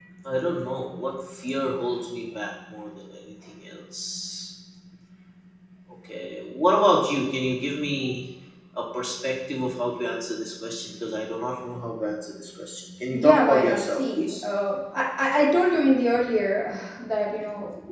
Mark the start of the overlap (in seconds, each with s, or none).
13.1 s